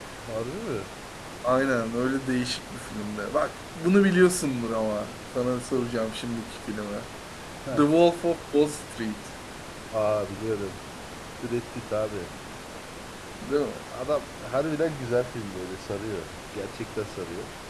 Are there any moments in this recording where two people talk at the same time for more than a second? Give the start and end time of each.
none

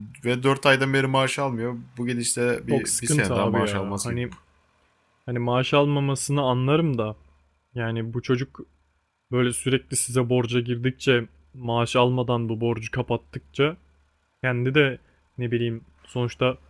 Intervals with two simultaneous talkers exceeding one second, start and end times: 2.7-4.2

